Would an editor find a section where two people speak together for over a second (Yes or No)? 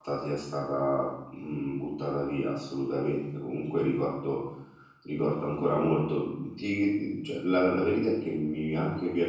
No